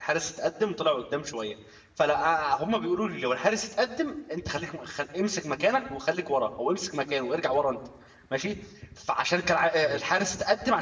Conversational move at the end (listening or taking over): listening